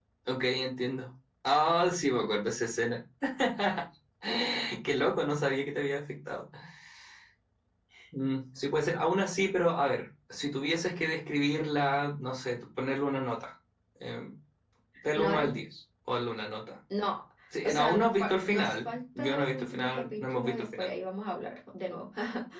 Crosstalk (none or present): present